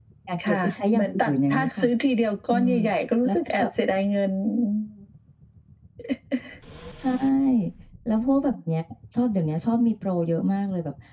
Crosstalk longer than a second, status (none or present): present